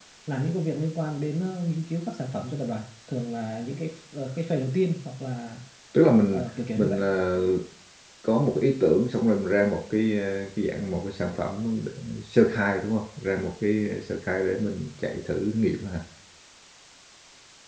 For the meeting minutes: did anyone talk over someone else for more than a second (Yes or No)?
No